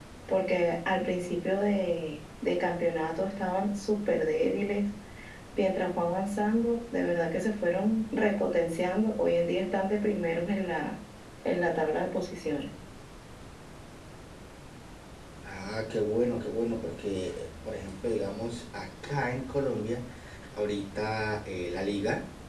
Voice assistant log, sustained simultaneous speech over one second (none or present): none